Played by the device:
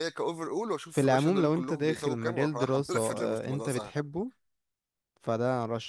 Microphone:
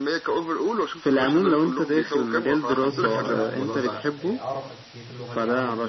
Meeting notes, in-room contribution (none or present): present